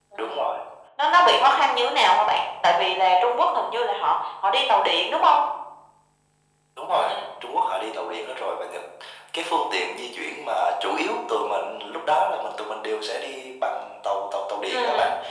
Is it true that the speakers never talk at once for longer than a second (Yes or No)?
Yes